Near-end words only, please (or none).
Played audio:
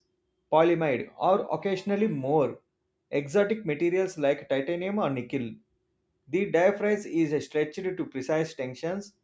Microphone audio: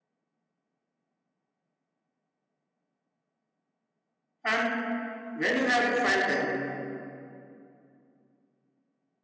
and when you have to file them